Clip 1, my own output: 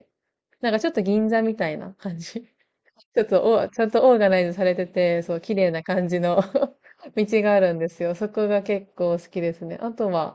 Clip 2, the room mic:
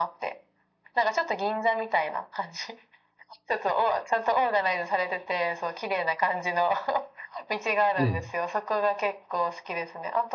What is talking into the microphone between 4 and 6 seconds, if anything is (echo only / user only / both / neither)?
echo only